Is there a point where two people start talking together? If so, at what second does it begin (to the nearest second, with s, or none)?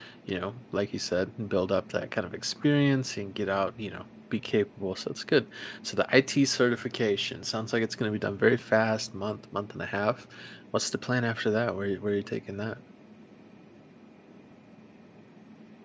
none